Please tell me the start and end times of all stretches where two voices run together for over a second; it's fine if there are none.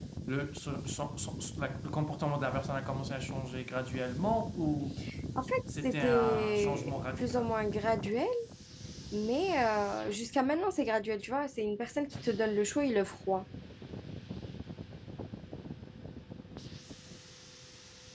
5.8-7.5

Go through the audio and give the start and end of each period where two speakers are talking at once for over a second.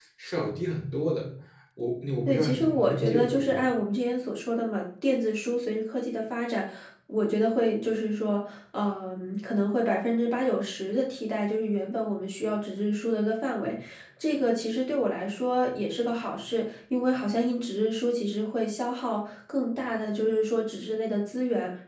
2.3-3.6

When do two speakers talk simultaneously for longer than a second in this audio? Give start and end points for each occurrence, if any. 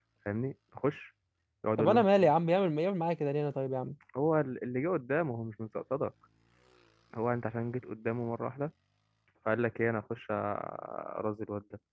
none

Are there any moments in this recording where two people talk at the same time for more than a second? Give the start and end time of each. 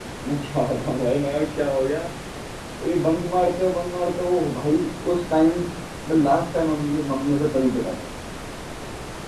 none

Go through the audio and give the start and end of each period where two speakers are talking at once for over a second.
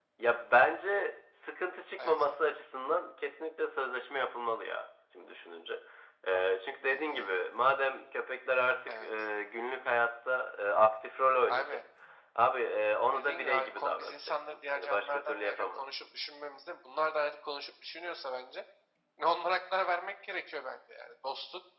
13.1-16.1

